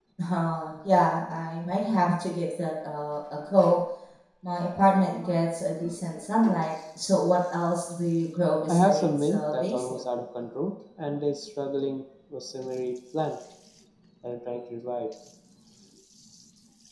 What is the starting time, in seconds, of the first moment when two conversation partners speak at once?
8.7 s

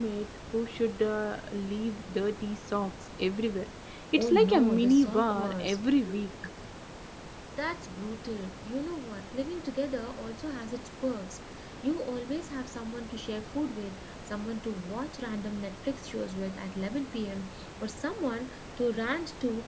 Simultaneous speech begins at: 4.2 s

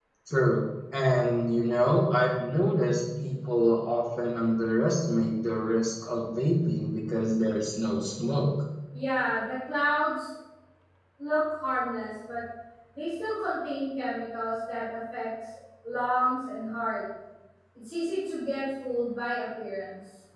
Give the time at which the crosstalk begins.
none

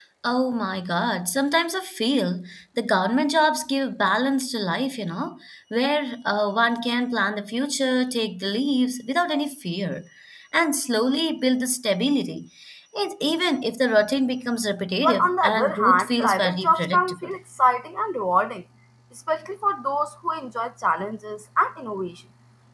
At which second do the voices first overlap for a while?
15.0 s

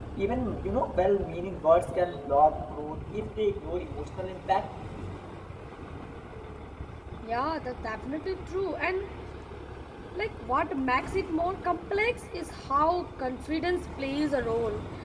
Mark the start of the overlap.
none

